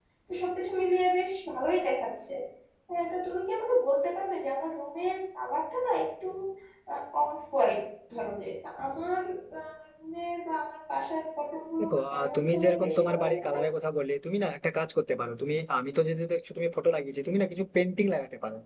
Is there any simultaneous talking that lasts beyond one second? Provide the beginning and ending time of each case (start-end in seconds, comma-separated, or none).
11.8-13.6